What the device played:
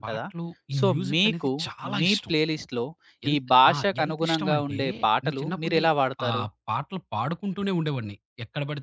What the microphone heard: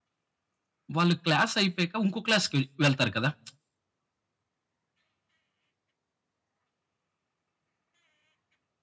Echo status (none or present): none